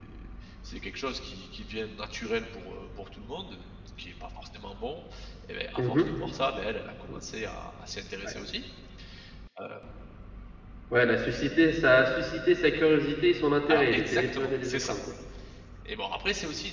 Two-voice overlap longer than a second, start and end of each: 13.7-15.0

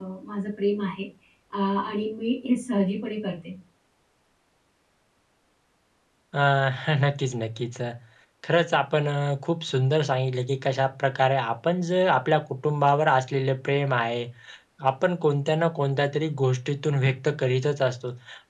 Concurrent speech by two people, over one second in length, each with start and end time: none

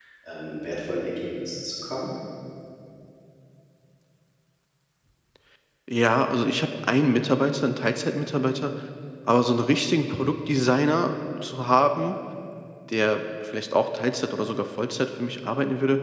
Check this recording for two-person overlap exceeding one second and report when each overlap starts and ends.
none

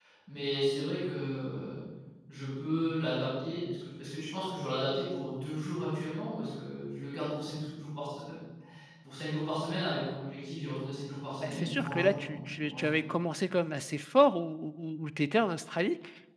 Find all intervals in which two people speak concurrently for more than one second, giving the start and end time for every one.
11.4-13.0

